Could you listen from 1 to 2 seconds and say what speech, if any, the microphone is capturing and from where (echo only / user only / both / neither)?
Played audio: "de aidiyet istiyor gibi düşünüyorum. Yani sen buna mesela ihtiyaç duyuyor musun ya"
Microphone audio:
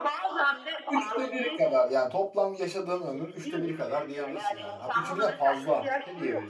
both